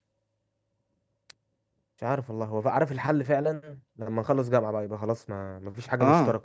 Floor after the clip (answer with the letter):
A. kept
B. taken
B